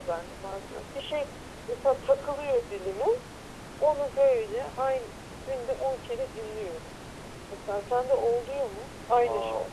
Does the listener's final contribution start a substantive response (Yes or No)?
Yes